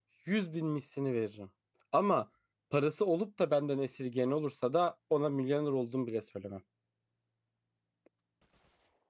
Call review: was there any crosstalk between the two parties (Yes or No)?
No